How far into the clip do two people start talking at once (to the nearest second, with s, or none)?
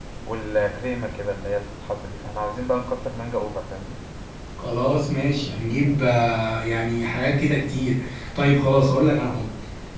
none